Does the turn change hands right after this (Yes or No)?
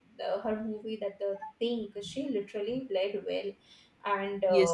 Yes